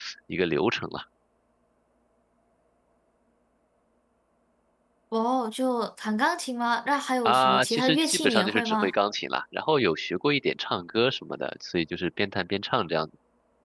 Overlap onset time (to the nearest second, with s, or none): 7 s